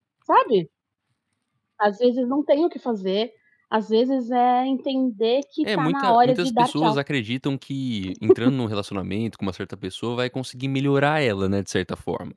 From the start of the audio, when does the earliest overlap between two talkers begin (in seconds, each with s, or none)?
5.6 s